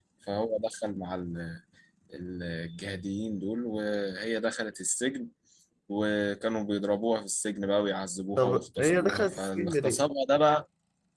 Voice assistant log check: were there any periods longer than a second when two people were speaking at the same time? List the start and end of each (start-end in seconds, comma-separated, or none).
8.4-10.0